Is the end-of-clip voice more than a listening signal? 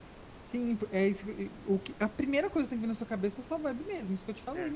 No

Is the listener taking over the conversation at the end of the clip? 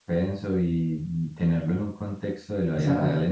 No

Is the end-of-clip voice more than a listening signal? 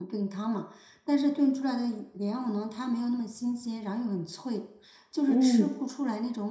No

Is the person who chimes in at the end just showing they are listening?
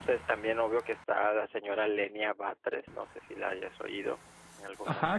No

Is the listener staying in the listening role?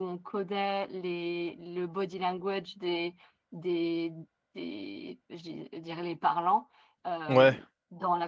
Yes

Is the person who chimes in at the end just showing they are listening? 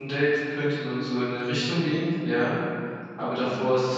Yes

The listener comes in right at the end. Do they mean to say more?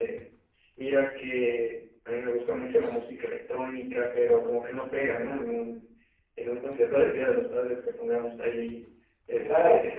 Yes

